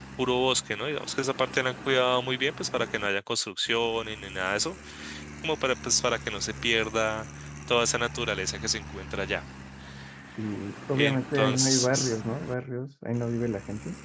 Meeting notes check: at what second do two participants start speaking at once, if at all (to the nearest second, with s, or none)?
11 s